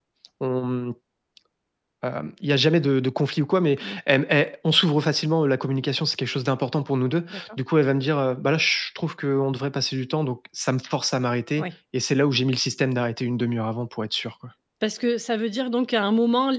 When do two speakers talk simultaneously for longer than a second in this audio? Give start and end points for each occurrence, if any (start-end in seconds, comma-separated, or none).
none